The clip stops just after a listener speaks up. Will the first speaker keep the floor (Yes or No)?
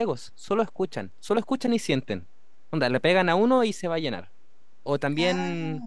Yes